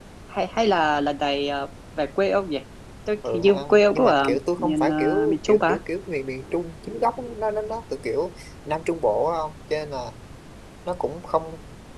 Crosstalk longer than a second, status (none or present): present